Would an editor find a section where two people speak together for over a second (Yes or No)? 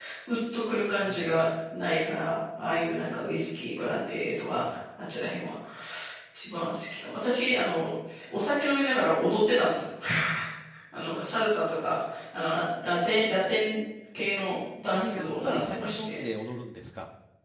Yes